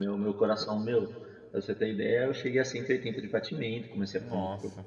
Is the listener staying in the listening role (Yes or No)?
Yes